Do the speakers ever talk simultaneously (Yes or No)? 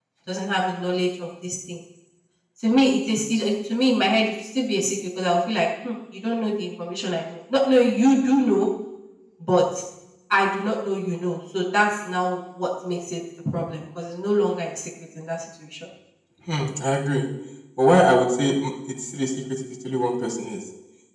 No